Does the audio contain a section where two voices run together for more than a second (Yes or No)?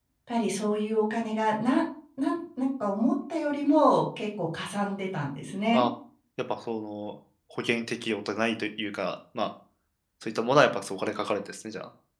No